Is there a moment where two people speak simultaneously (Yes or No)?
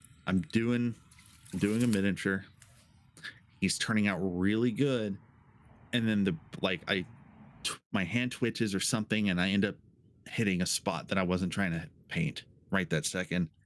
No